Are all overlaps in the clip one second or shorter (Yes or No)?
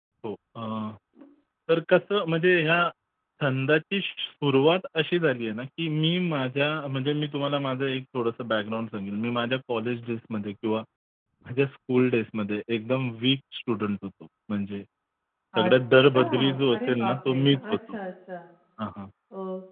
No